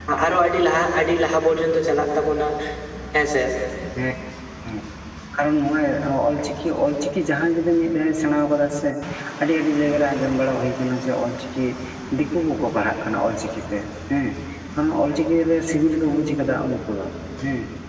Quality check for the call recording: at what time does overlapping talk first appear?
none

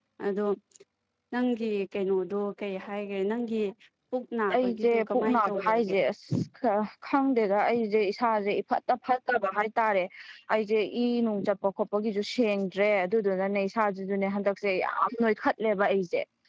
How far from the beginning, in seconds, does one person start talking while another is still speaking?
4.5 s

